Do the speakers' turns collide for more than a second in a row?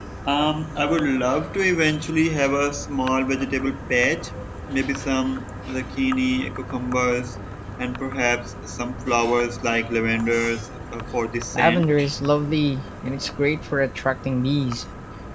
No

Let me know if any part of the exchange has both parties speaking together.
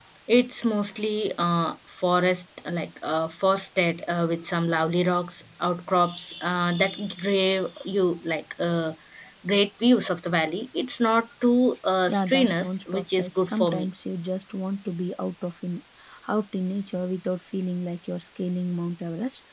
Yes, from 12.1 s

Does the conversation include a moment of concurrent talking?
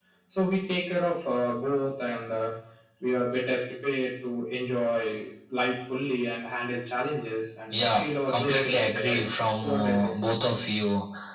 Yes, from 7.7 s

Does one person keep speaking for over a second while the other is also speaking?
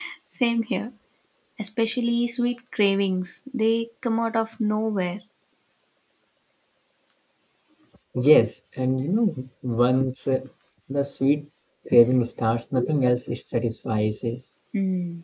No

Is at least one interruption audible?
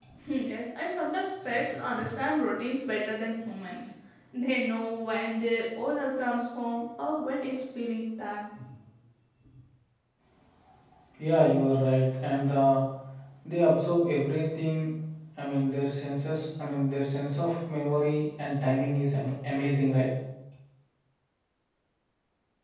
No

